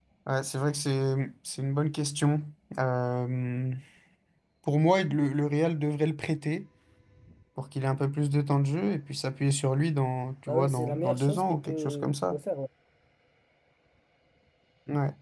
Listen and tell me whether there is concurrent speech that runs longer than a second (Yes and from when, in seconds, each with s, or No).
Yes, from 10.5 s